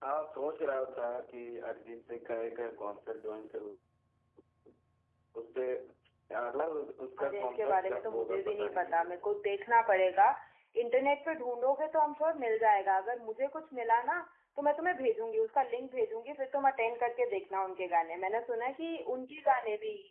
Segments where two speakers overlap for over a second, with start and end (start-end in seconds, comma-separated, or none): 7.2-9.1